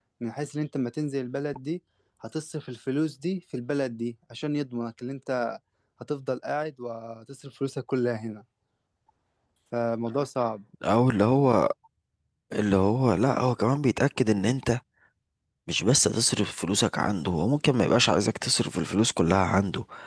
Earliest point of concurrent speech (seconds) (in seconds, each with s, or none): none